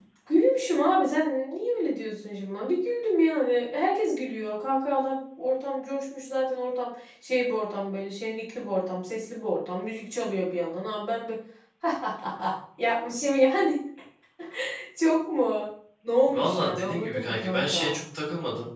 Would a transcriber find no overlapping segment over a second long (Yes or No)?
No